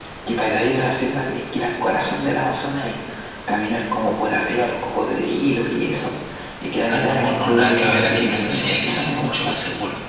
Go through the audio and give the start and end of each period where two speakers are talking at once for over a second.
6.9-9.5

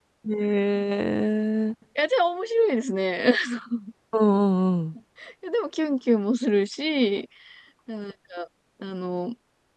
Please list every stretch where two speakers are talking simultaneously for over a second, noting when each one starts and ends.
none

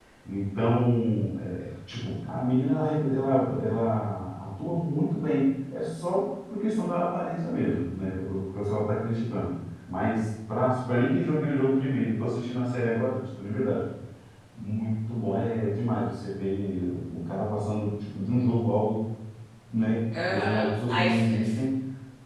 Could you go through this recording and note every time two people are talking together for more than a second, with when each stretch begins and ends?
20.1-21.5

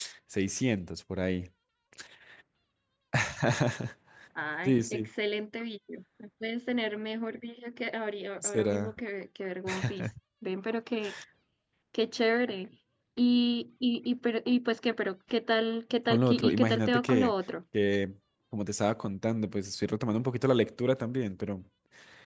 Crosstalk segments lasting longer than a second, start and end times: 16.1-17.3

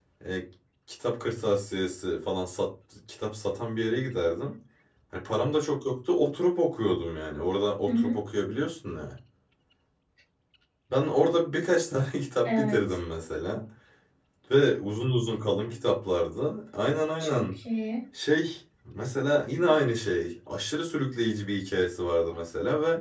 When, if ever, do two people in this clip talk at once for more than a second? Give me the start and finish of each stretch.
none

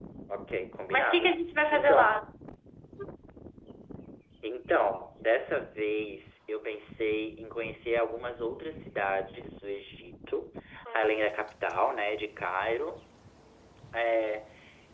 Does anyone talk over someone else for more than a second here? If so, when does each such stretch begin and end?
none

